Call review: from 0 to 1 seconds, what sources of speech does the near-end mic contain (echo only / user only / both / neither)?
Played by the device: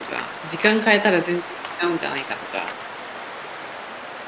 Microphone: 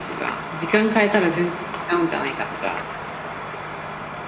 echo only